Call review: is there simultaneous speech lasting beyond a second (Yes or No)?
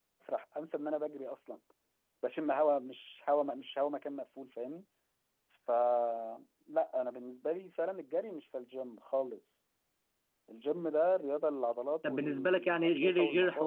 Yes